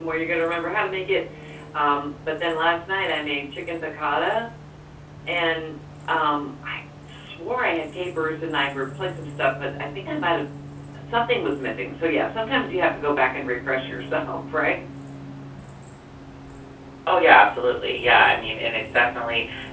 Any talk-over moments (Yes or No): No